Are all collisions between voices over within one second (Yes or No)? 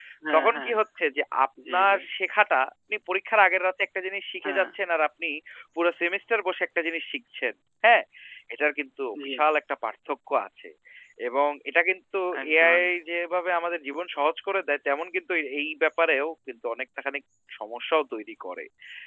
Yes